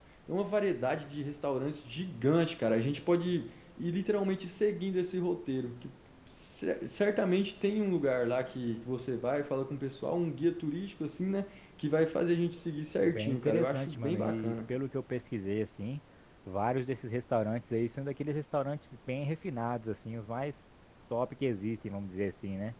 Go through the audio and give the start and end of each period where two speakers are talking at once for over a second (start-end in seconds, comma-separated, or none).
13.0-14.6